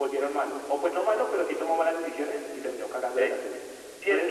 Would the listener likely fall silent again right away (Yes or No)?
No